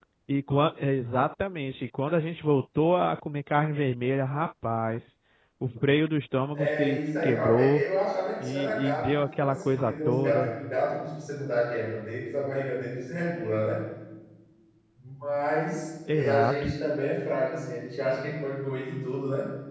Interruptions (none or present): present